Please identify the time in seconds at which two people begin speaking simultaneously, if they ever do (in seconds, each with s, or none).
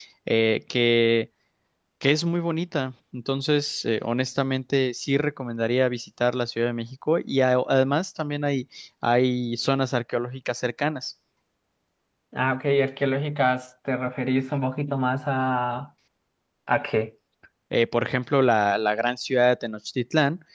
none